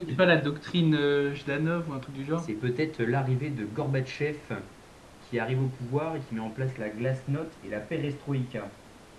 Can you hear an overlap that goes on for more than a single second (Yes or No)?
No